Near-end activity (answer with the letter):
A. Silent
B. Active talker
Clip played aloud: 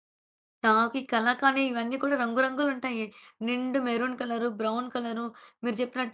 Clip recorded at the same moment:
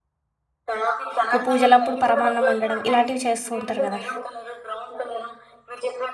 B